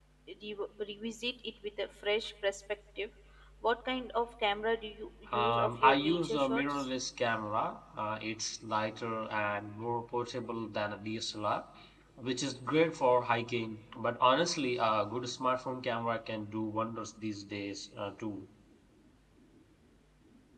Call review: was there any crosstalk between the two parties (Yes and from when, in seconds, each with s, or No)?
Yes, from 5.3 s